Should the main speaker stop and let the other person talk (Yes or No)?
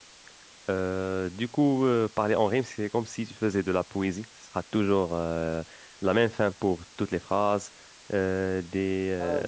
No